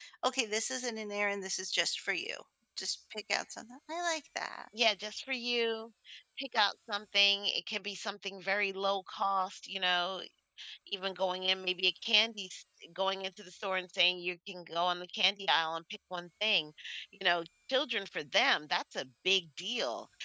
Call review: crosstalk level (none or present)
none